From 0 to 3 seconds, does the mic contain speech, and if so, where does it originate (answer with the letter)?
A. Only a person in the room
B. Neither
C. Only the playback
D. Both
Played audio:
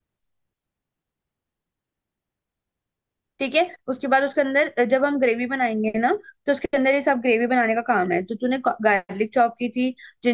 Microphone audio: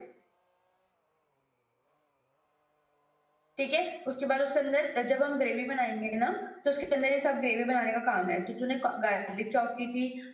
B